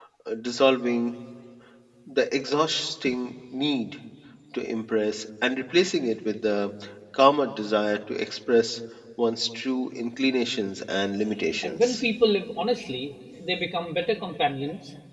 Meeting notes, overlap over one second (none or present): none